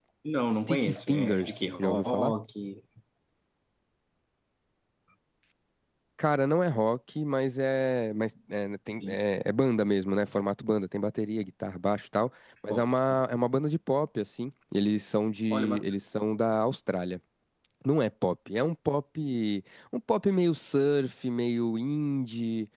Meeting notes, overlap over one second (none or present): present